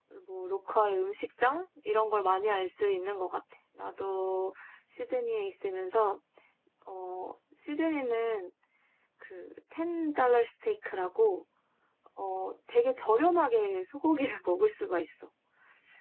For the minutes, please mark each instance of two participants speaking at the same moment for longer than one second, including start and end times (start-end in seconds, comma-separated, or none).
none